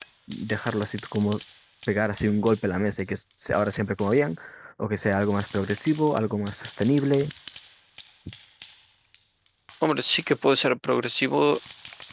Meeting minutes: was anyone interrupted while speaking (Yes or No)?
No